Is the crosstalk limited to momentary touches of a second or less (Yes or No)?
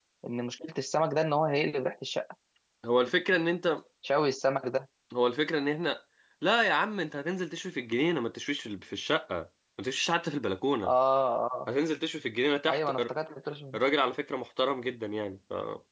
Yes